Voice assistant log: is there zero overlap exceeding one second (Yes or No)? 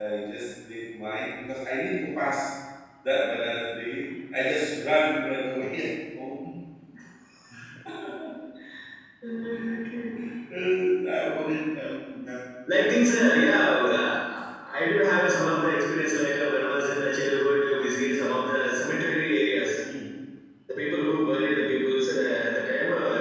Yes